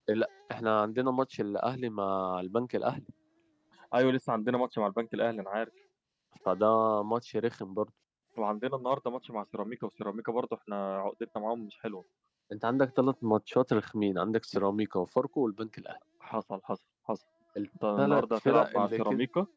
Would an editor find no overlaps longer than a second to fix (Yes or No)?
No